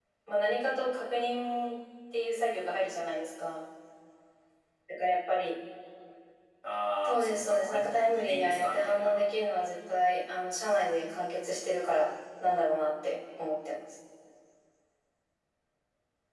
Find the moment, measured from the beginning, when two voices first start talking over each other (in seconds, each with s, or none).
7.2 s